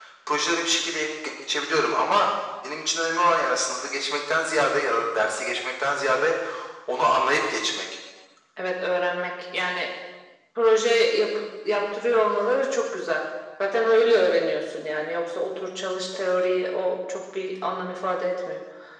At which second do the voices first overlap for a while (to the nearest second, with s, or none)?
none